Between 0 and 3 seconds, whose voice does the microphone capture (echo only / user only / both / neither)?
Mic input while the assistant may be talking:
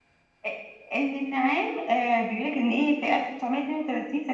echo only